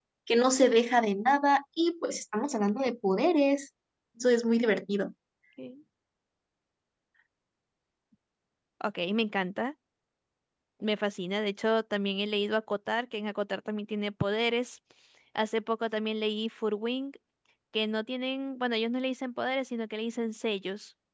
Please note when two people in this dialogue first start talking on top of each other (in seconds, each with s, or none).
none